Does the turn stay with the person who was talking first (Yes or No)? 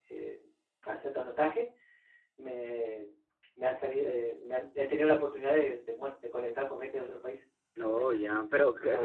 No